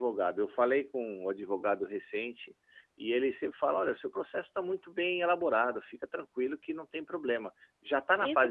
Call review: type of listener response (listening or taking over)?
taking over